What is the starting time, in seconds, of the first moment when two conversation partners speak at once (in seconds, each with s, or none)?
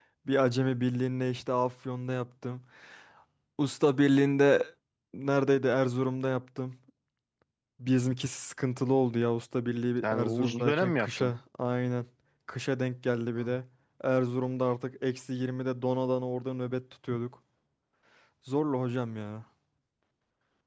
10.0 s